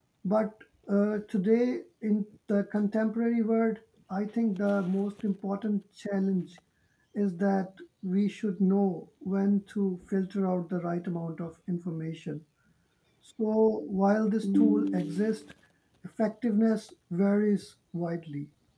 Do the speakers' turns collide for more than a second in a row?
No

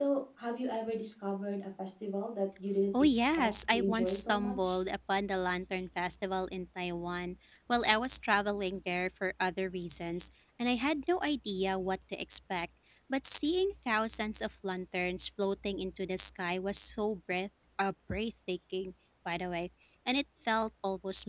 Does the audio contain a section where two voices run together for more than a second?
Yes, from 2.9 s

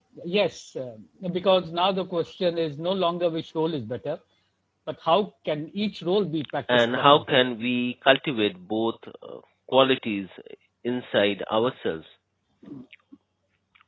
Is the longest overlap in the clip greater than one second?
No

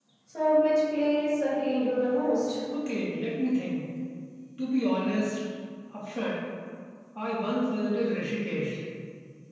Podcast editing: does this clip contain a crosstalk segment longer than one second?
No

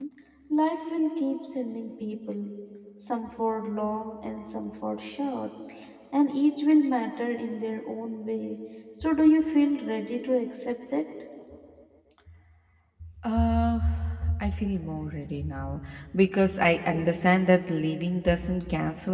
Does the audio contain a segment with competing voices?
No

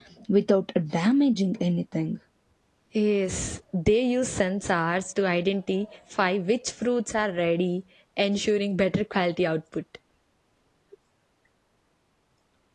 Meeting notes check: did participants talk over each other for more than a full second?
No

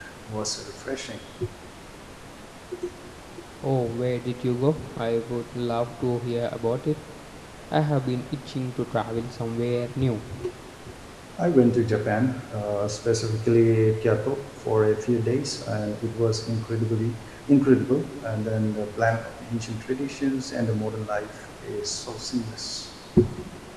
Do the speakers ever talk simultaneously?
No

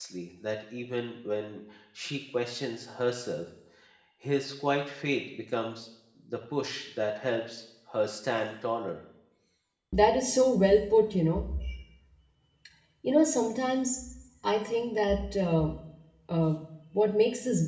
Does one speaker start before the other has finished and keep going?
No

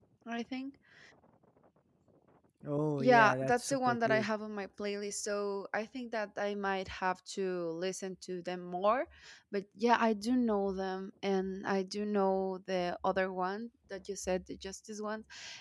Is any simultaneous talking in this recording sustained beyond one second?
Yes, from 3.0 s

